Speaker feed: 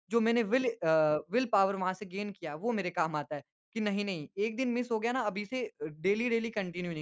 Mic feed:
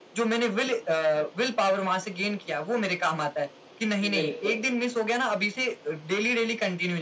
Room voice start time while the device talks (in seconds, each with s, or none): 4.0 s